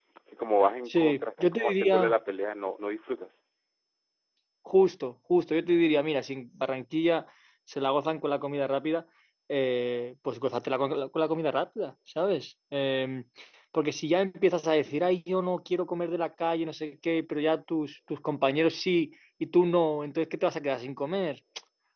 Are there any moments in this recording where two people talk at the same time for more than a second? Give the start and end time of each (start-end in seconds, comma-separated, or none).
0.9-2.2